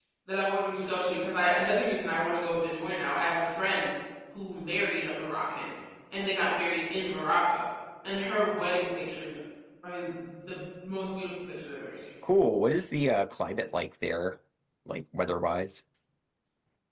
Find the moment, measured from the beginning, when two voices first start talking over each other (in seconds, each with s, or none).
none